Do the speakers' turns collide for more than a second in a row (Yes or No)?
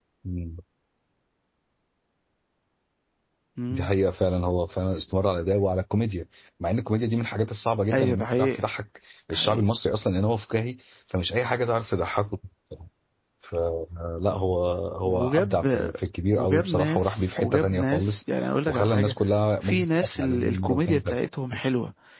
Yes